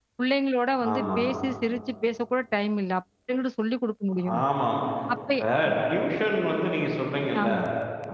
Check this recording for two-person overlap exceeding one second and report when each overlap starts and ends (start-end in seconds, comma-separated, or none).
none